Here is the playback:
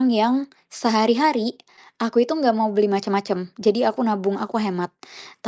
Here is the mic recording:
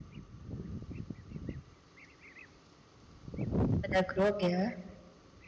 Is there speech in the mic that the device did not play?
Yes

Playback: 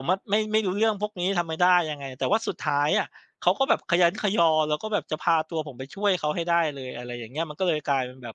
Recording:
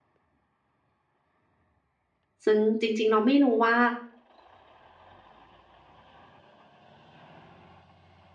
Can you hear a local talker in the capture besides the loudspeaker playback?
Yes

